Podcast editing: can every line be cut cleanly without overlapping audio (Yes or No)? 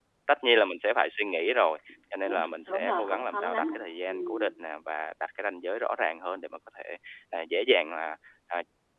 No